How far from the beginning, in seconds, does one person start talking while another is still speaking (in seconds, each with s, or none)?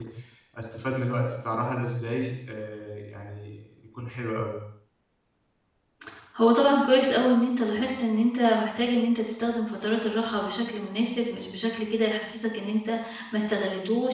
none